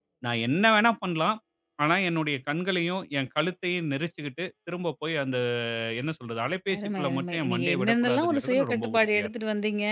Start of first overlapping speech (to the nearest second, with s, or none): 7 s